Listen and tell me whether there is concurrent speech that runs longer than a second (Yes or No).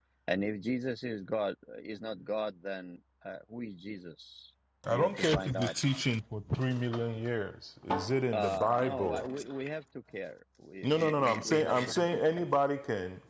Yes